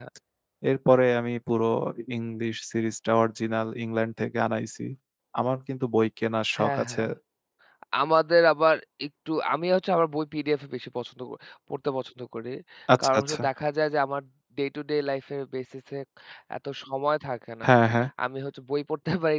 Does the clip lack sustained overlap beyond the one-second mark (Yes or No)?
Yes